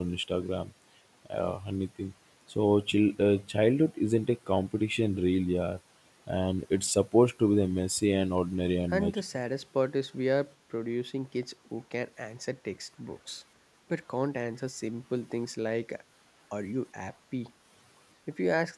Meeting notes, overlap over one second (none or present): none